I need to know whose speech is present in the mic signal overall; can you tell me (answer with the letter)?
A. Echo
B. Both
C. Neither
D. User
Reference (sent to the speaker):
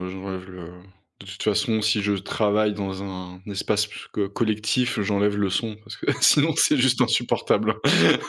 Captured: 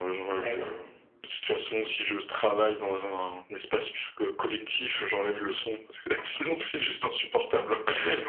B